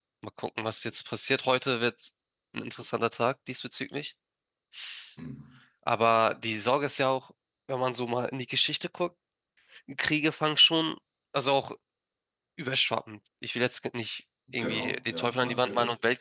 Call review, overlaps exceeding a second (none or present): present